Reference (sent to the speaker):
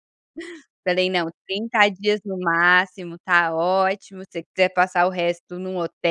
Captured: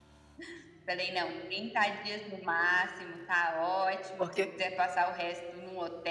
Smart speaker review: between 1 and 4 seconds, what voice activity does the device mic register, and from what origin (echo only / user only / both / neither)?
echo only